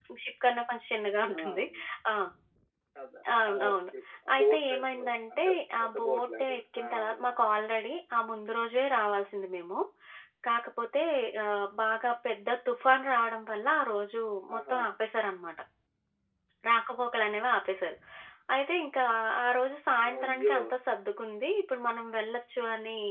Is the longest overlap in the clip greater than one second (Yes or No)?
Yes